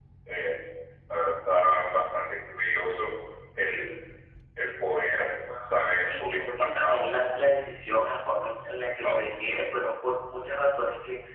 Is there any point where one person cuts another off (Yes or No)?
Yes